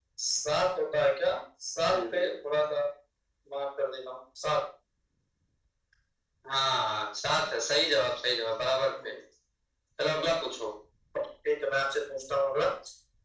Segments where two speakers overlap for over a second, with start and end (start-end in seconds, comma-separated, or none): none